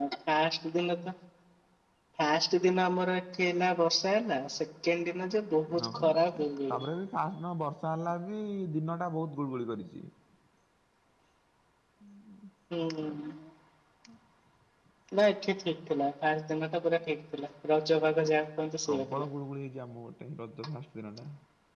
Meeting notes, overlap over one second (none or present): none